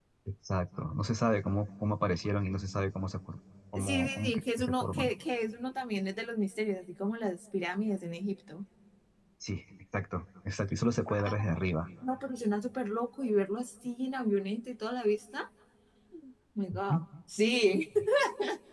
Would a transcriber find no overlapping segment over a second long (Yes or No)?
No